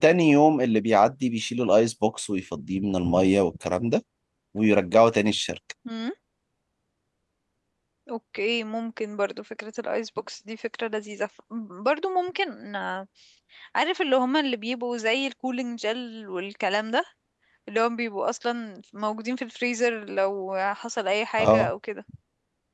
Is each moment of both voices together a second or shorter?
Yes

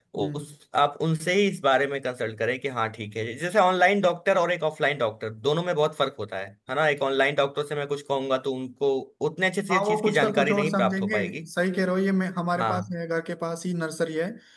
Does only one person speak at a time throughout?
No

